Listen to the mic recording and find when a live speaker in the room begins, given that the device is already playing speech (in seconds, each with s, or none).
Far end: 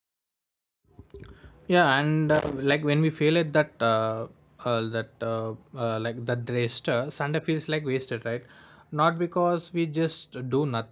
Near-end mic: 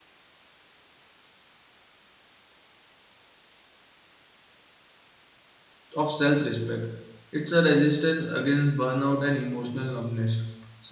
6.0 s